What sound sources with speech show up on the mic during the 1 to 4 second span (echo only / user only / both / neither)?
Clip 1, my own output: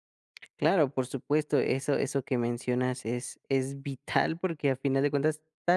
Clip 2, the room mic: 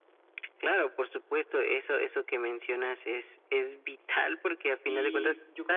echo only